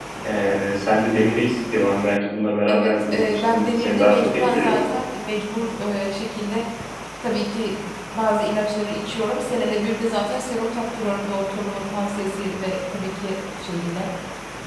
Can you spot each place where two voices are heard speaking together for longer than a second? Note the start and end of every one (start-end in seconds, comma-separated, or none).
2.7-4.8